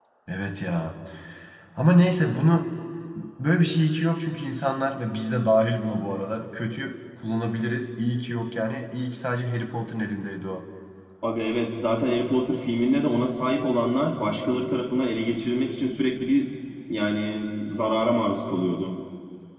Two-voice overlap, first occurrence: none

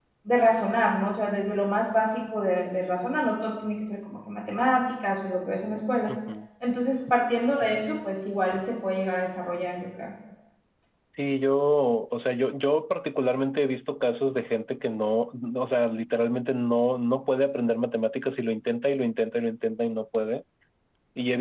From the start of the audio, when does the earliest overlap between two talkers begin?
none

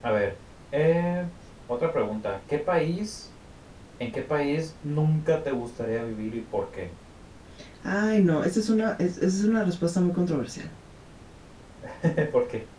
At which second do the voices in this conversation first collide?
none

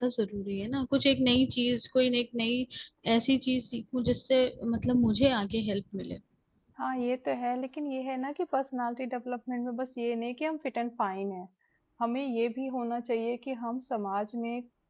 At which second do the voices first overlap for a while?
none

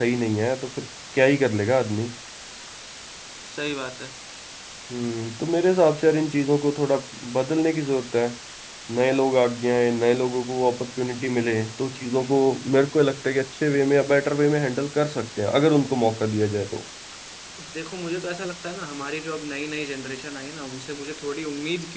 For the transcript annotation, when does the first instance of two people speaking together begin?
none

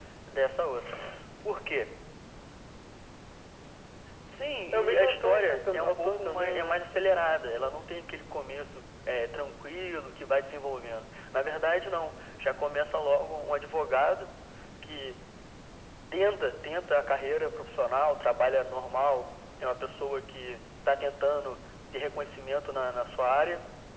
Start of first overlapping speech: 5 s

